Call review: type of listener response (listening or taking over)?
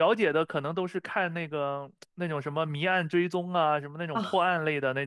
listening